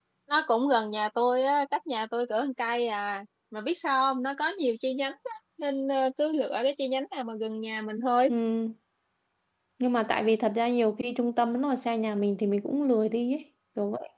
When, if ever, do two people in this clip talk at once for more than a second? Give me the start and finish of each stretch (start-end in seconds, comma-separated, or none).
none